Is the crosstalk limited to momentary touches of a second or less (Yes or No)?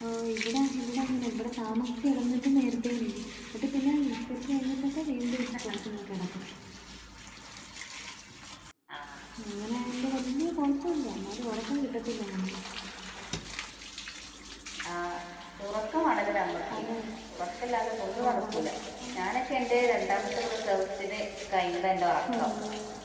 Yes